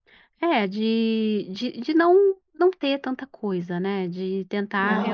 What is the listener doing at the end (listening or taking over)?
taking over